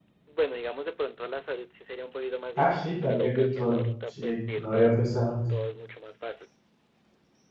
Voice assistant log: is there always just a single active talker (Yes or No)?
No